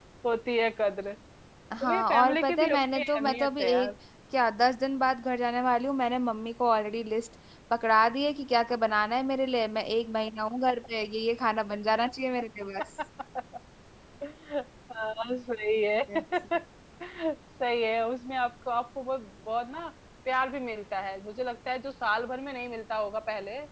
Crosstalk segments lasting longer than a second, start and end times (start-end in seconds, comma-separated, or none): 1.8-3.9